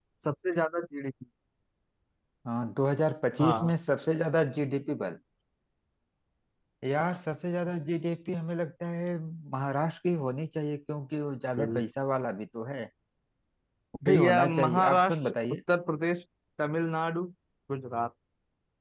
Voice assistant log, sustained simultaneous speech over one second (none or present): present